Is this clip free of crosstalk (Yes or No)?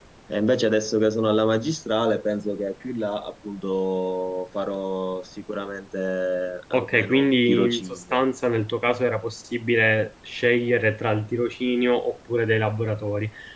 No